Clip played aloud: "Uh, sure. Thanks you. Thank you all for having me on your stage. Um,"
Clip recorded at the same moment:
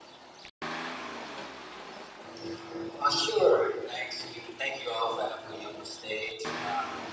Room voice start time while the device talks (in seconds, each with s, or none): none